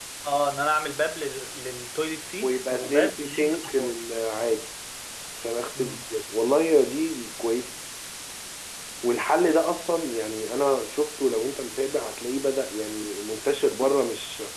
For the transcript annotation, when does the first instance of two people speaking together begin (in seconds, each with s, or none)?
2.4 s